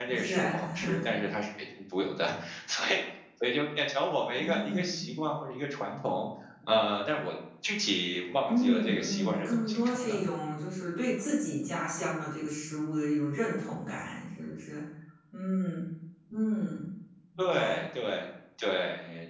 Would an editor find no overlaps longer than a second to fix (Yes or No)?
No